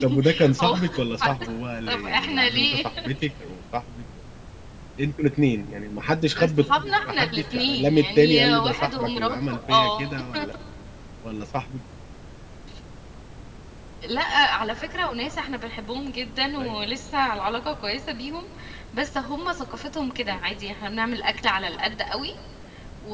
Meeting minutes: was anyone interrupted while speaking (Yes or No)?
Yes